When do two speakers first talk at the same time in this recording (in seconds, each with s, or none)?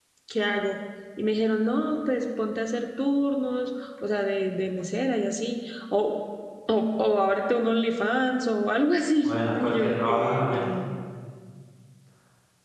9.2 s